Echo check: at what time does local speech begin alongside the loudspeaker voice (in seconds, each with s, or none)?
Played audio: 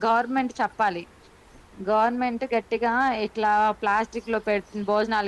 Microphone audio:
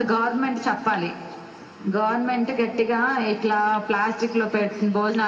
none